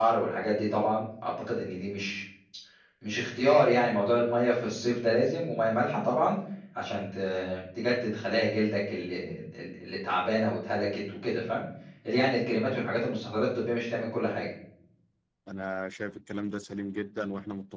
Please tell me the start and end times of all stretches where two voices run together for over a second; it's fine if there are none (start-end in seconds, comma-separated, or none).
none